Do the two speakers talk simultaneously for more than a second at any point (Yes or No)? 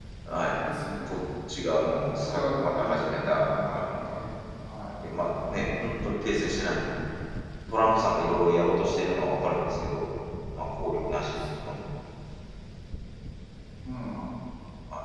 Yes